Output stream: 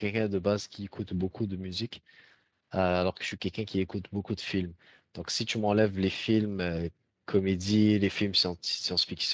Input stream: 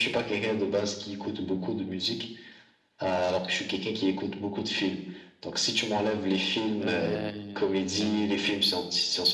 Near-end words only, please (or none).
Euh...